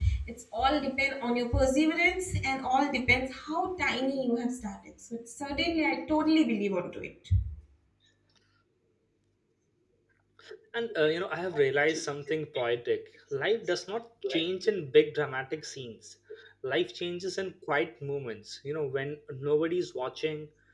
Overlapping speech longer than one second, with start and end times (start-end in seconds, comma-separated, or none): none